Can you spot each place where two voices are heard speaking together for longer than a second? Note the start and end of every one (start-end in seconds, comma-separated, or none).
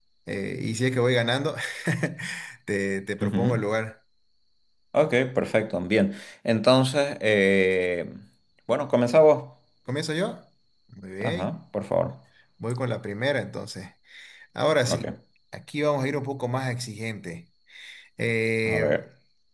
none